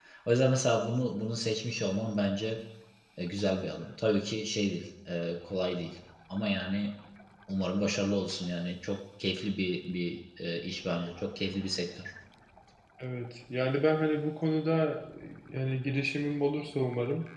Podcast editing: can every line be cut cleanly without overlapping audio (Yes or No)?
Yes